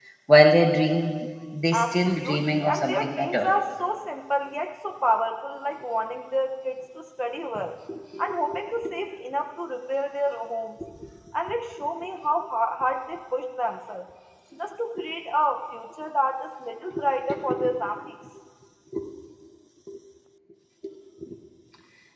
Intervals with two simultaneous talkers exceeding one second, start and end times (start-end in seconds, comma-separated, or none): 1.7-3.5